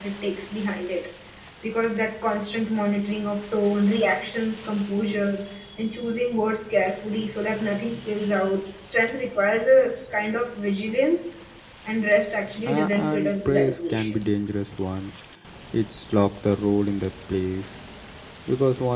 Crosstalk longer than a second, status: present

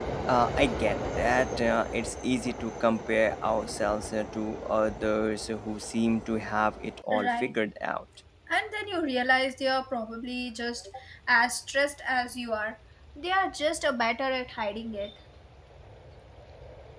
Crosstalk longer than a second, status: none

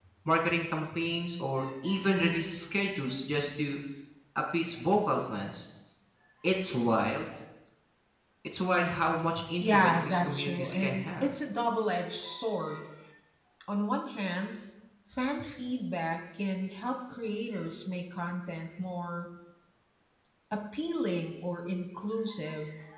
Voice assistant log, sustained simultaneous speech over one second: present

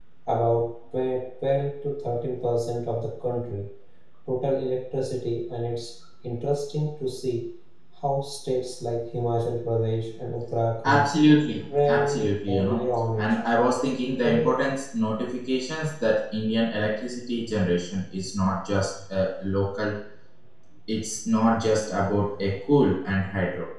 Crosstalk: present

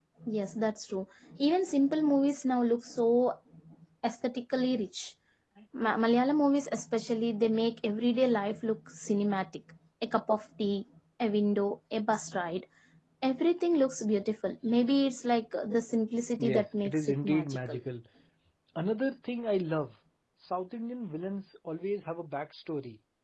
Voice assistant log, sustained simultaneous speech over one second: present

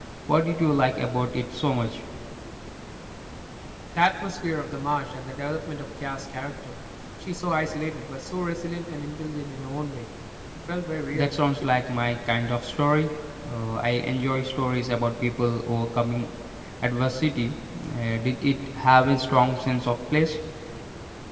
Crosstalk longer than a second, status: none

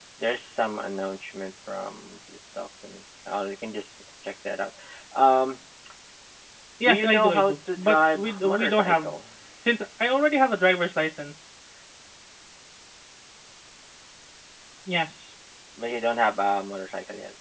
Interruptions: present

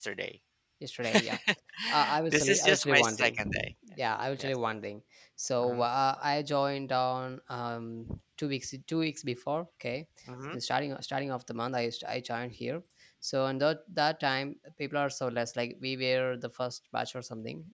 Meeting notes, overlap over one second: present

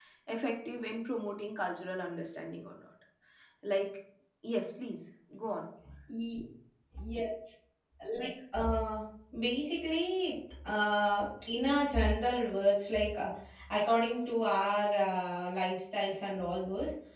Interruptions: none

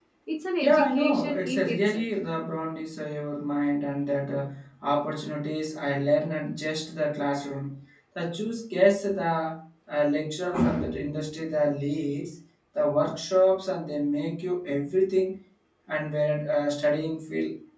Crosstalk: present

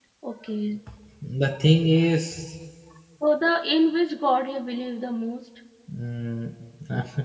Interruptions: none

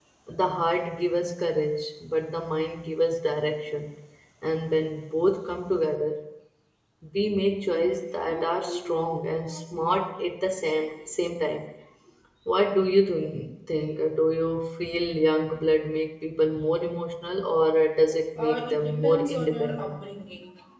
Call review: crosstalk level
present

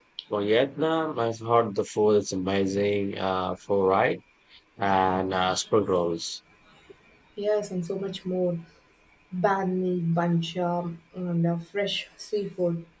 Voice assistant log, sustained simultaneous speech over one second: none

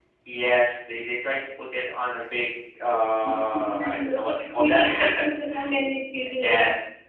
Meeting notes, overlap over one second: present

